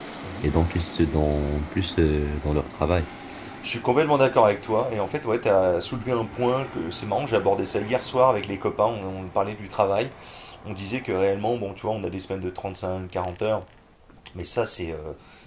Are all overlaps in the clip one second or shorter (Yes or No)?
Yes